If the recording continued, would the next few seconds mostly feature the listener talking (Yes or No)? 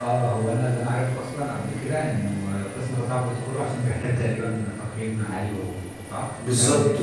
Yes